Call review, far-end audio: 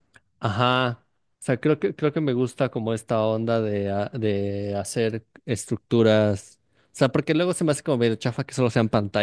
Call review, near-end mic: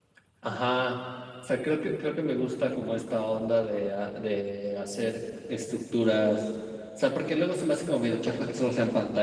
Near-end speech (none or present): none